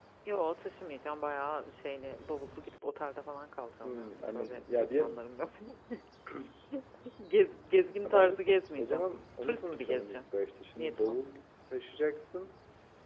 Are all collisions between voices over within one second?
No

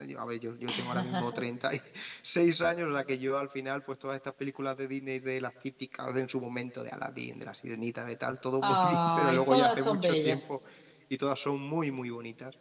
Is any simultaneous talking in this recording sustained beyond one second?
Yes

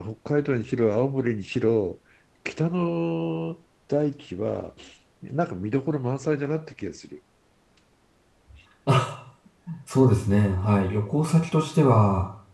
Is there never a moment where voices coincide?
Yes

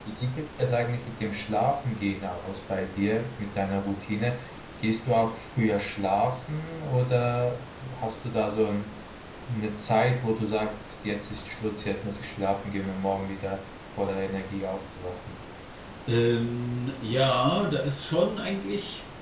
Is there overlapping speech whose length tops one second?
No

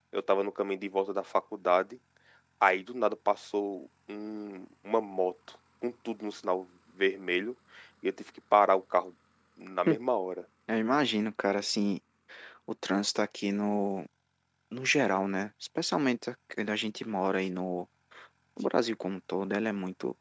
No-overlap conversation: Yes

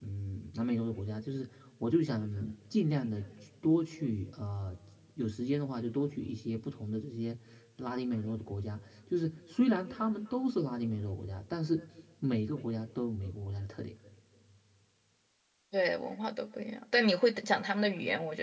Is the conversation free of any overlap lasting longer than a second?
Yes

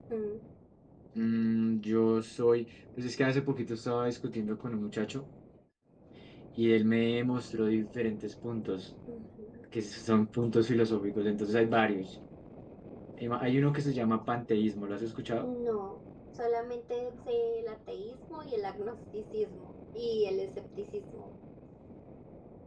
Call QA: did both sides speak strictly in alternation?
Yes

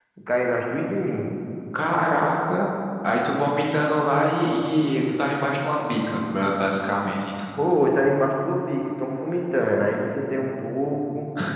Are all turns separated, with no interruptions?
Yes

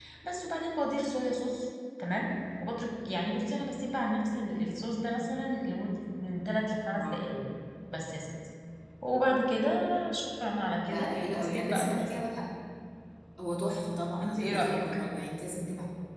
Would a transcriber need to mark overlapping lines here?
Yes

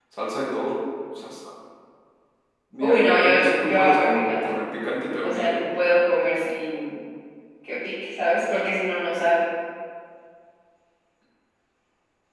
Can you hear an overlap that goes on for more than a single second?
Yes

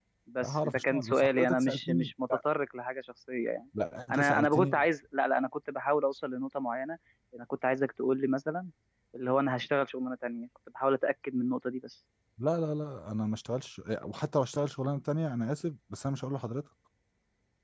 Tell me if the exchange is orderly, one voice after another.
No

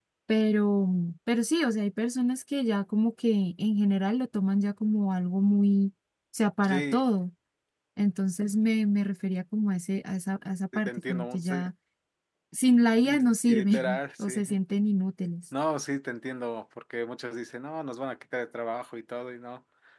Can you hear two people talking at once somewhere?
Yes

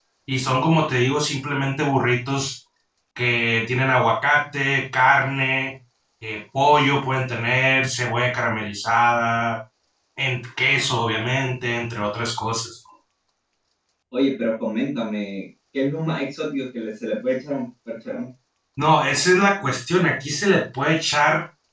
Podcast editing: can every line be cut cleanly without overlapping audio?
Yes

